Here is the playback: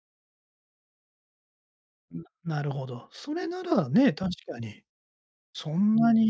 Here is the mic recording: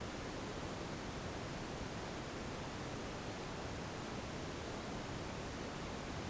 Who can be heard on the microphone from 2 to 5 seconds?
neither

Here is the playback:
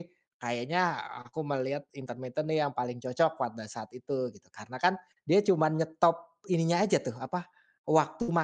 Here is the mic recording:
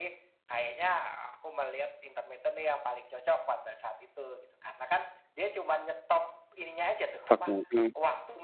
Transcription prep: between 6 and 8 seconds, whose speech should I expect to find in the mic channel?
both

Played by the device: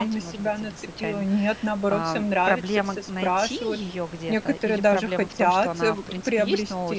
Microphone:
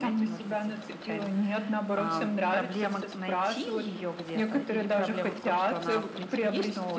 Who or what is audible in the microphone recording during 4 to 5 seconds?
echo only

